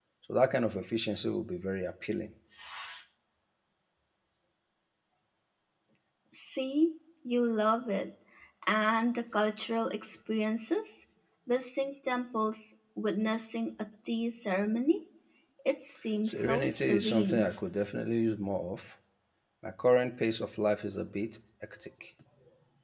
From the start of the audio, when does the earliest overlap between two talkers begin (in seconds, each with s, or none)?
16.2 s